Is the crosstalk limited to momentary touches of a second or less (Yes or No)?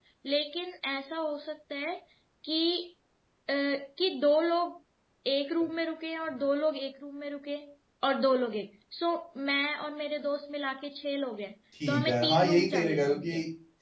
No